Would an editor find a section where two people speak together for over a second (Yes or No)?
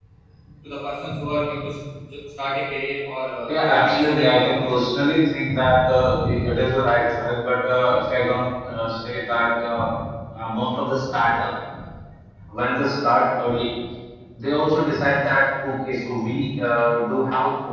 Yes